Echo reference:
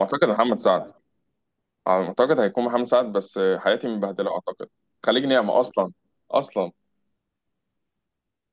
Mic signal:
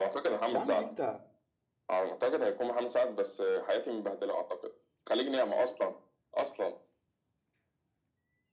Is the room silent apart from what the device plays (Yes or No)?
No